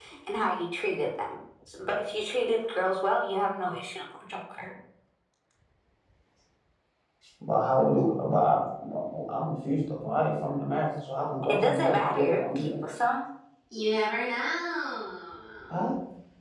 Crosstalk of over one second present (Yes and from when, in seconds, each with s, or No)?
Yes, from 11.4 s